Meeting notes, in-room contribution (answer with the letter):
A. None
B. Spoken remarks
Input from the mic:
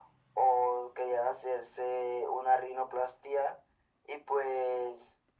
A